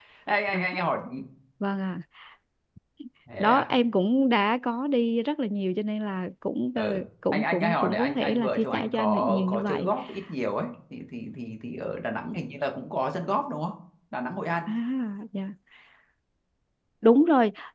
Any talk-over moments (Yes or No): Yes